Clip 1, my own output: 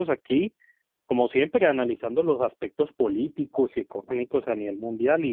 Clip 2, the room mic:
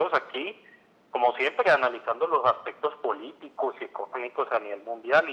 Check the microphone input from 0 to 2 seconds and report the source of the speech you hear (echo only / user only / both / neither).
echo only